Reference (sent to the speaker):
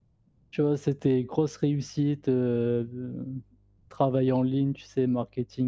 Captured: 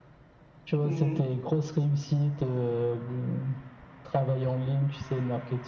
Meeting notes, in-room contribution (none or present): present